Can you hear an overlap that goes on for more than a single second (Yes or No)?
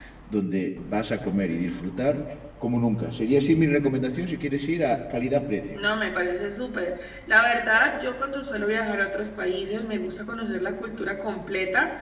No